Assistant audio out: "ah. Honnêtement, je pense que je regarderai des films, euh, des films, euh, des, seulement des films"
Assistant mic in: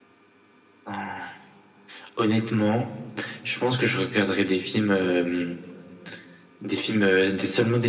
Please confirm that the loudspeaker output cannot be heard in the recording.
No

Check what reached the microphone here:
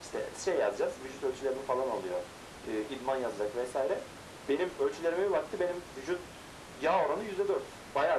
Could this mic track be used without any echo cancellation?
No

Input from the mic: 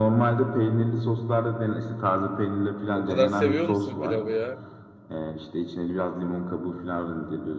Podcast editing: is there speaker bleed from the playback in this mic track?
Yes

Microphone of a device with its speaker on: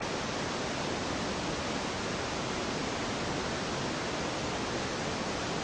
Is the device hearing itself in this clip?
No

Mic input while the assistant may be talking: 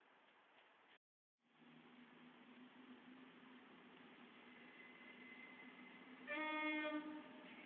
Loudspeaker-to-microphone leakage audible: No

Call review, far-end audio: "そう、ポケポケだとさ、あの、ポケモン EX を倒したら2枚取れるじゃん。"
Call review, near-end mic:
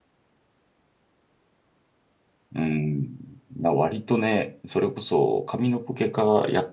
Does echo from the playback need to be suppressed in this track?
No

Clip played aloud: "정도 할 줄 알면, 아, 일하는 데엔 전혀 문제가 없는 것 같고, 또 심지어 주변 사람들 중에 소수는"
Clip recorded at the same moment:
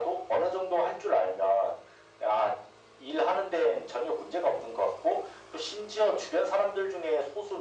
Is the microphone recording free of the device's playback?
No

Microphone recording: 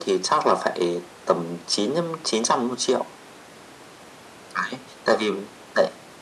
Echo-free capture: No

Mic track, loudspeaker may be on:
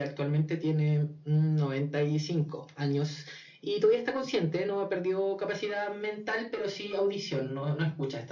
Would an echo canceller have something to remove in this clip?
Yes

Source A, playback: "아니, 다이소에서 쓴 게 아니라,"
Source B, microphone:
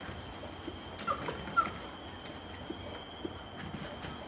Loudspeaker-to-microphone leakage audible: No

